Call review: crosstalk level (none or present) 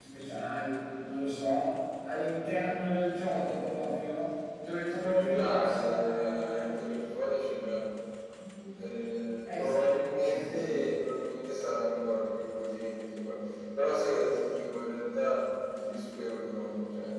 present